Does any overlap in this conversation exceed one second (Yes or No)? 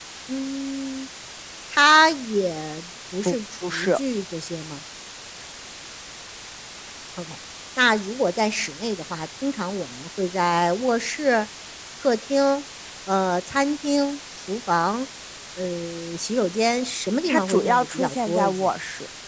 Yes